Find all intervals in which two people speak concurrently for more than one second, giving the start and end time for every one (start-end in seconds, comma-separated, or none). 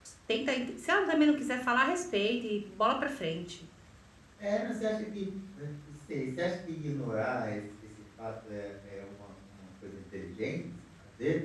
none